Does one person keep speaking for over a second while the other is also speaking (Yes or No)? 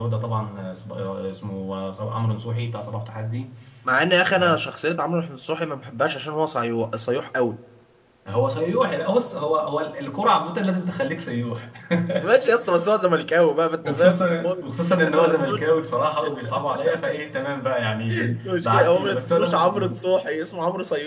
Yes